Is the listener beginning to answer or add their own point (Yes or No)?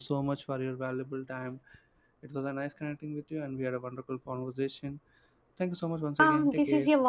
Yes